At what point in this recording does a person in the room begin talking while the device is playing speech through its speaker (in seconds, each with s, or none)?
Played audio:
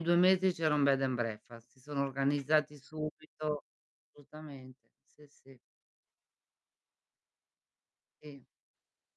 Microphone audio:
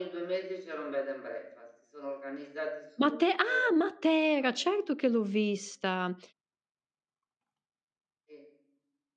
3.0 s